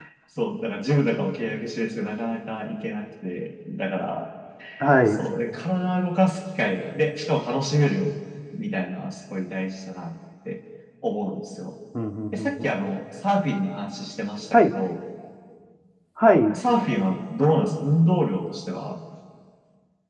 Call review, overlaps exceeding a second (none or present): none